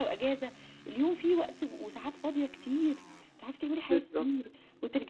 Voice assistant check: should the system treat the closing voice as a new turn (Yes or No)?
No